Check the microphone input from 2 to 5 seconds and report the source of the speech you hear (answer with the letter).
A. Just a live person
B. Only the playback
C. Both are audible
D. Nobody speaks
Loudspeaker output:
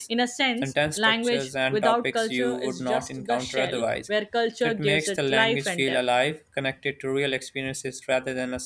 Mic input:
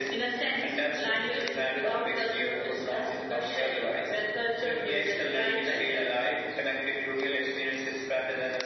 B